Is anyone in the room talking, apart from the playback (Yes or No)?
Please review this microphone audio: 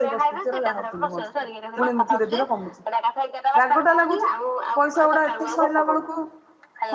Yes